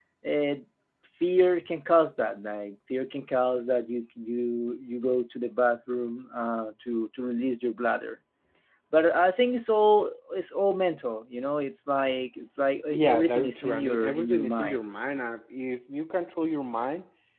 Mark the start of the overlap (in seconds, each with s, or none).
12.9 s